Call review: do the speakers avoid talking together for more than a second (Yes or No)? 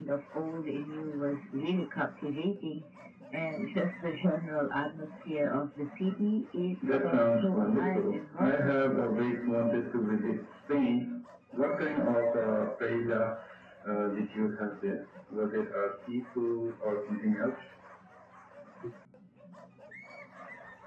No